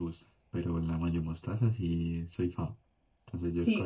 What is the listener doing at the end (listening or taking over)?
taking over